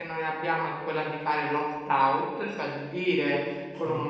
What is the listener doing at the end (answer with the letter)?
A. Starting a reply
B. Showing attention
B